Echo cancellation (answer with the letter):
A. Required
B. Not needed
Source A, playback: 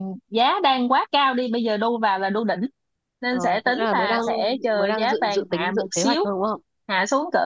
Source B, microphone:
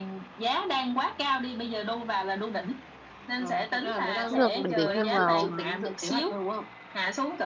A